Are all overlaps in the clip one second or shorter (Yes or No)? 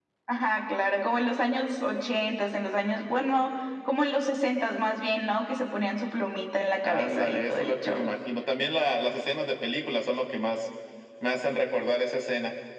No